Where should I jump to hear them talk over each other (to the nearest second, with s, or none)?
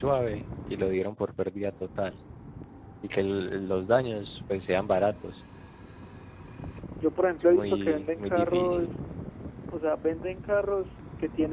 7 s